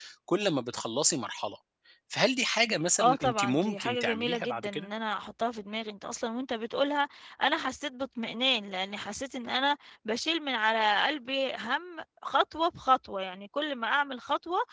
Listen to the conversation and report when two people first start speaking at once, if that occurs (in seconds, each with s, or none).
3.0 s